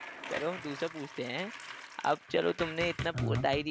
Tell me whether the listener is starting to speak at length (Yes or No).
No